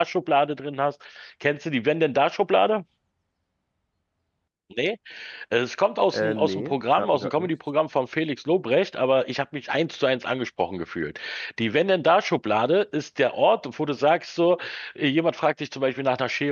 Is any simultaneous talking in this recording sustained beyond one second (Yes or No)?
Yes